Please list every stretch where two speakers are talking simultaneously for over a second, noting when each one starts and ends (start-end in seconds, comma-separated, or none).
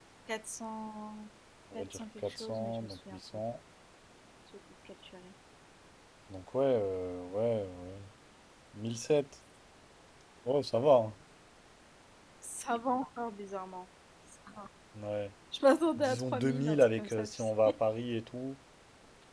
1.7-3.4, 15.9-17.8